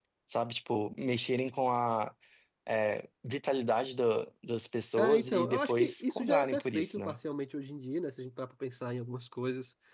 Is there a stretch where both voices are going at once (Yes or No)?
Yes